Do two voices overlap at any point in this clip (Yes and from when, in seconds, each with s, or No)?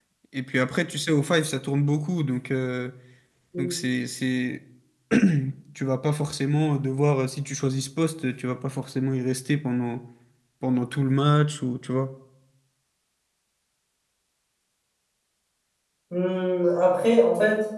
No